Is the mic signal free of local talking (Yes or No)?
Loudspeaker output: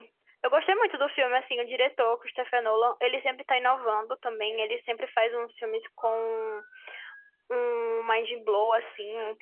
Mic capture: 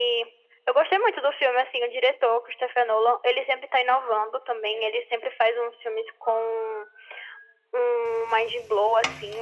Yes